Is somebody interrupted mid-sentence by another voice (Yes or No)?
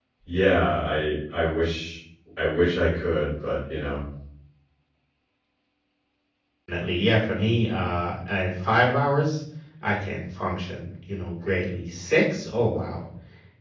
No